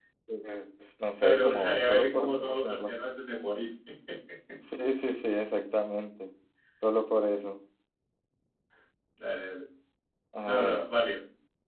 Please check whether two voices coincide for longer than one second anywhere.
Yes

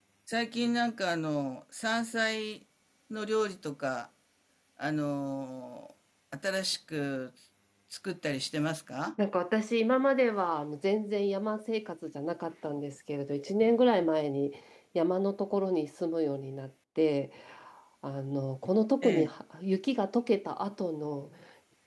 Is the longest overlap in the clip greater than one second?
No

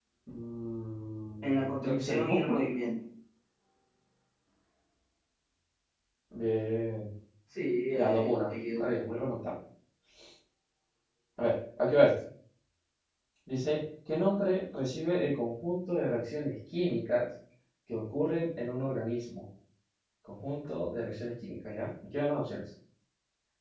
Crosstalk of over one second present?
Yes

